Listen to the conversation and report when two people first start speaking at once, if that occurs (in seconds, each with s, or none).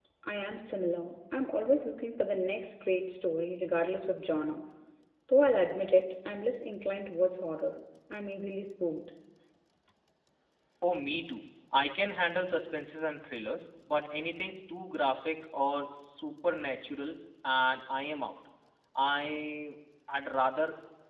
none